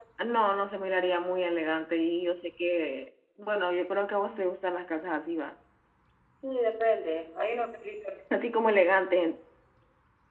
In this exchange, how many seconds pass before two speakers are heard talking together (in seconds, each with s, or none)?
none